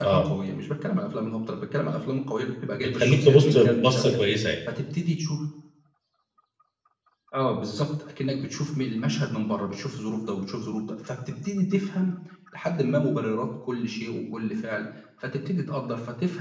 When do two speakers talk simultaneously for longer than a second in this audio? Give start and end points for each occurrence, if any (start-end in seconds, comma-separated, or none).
2.8-4.2